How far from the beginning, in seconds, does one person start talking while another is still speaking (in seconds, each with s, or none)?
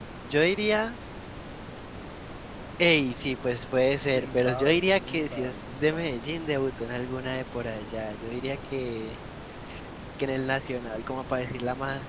4.2 s